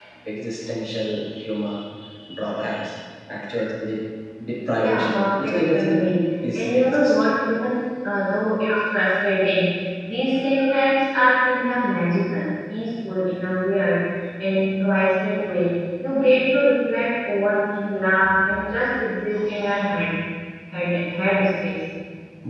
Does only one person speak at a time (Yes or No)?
No